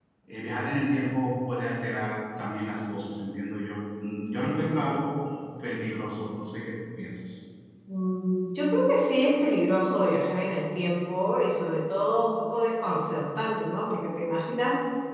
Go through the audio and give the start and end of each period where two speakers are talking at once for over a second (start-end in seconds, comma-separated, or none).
none